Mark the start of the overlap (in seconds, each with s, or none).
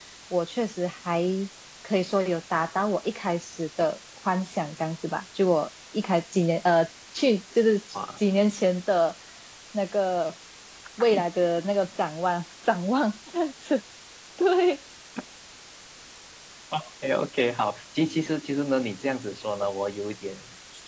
none